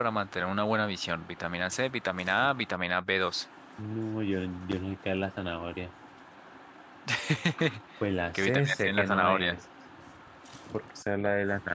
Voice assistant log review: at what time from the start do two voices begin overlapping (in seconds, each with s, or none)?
8.3 s